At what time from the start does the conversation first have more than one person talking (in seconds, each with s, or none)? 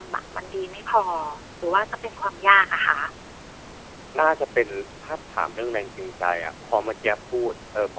none